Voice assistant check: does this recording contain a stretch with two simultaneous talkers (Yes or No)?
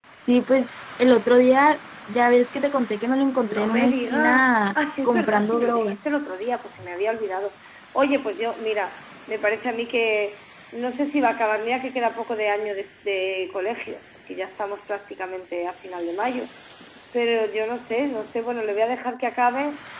Yes